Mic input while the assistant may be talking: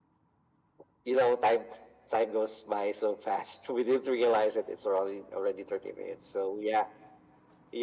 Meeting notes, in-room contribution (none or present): none